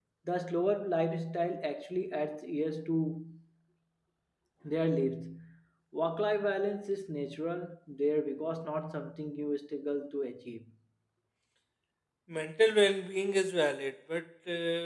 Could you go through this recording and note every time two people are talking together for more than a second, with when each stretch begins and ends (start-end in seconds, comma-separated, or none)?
none